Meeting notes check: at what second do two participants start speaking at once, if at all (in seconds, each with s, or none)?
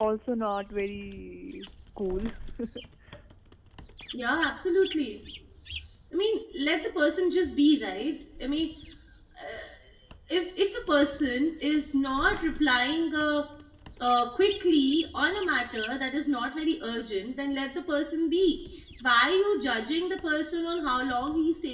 none